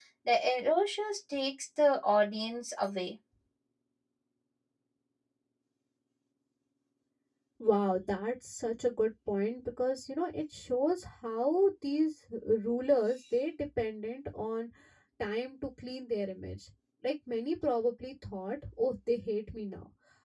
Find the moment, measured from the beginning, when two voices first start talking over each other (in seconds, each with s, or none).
none